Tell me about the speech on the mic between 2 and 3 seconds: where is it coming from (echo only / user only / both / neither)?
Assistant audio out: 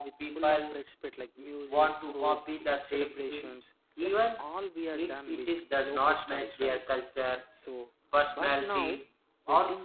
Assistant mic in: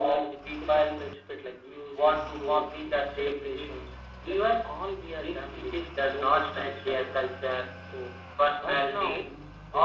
echo only